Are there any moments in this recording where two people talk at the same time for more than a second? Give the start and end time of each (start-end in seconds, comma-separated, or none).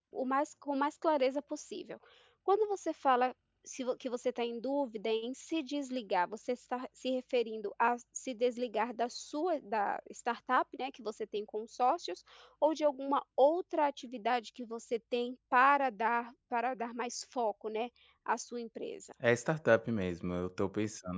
none